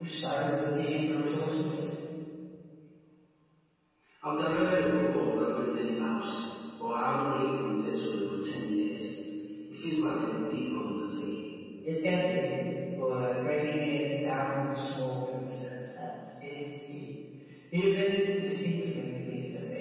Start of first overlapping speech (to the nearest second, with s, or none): none